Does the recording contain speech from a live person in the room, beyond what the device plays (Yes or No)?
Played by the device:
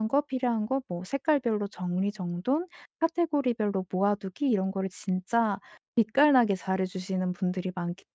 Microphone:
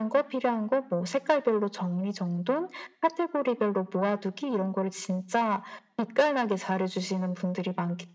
No